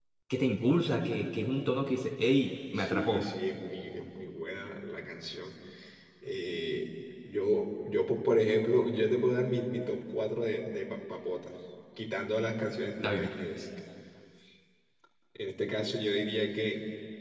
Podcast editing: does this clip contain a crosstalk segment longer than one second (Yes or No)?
No